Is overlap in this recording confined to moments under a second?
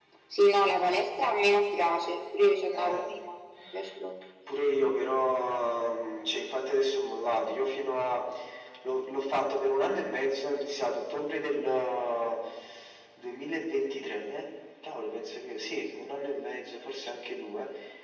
Yes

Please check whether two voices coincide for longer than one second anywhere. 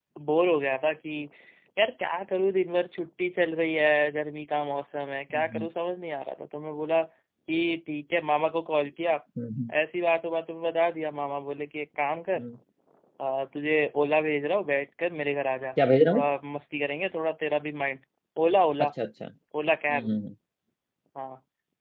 No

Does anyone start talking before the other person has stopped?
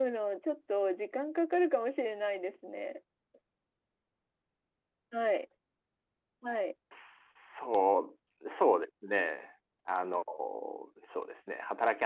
No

